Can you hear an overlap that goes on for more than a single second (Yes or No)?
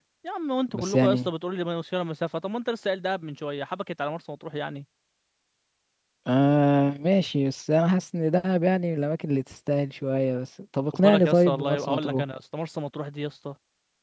Yes